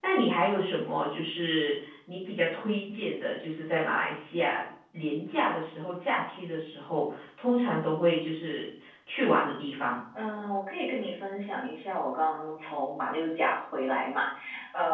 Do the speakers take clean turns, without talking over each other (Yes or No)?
Yes